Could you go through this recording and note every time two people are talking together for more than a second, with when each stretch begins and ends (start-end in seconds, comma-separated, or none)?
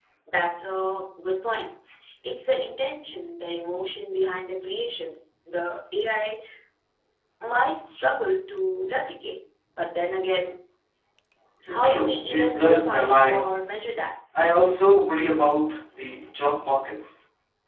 11.8-13.7